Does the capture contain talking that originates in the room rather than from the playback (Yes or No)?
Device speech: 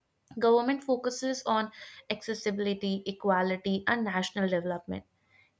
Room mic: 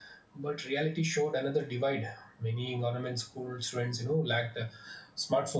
Yes